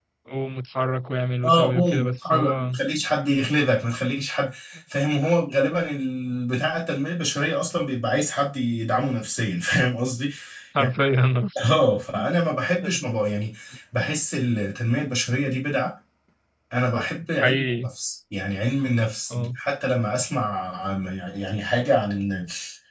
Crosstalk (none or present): present